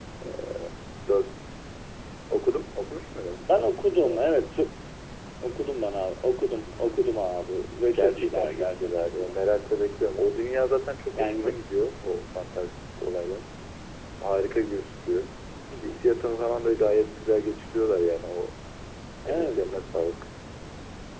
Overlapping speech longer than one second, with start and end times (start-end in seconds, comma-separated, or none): 7.9-9.3